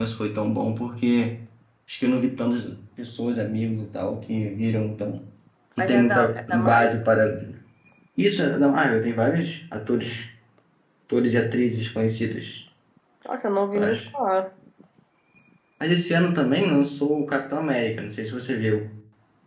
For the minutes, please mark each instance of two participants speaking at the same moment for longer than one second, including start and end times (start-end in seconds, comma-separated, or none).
5.8-7.0